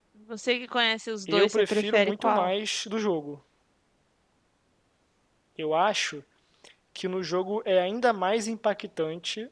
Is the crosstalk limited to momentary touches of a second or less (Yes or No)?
No